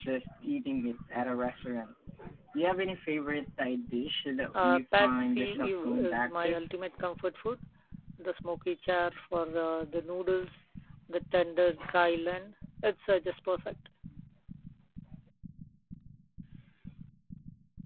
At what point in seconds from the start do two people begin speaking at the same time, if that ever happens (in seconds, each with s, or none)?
4.5 s